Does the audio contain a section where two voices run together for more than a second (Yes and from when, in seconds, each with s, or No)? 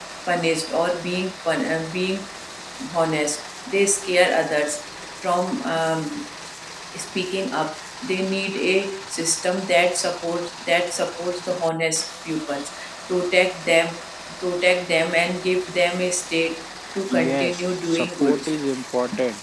Yes, from 17.1 s